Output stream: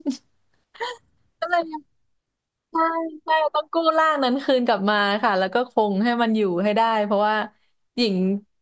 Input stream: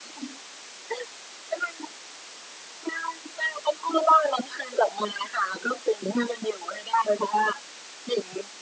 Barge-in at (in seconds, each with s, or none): none